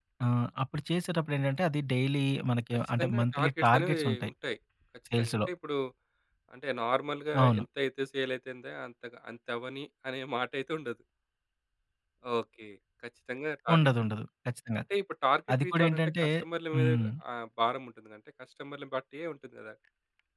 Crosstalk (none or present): present